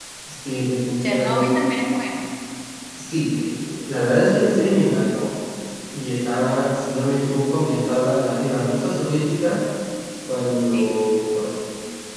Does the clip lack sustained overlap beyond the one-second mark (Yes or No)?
Yes